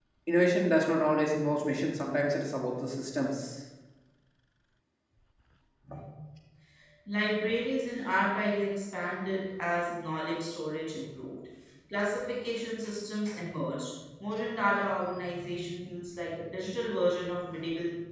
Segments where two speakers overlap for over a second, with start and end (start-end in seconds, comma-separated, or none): none